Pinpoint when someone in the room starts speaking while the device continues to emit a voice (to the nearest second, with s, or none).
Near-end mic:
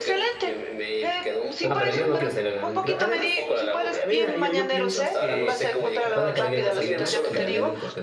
2 s